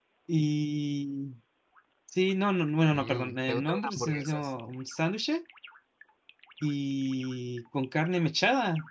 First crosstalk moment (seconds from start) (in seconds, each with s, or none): 2.9 s